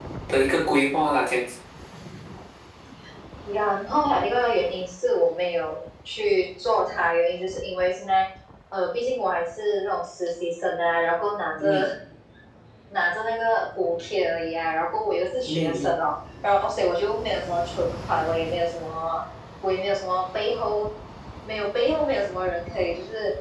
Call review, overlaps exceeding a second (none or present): none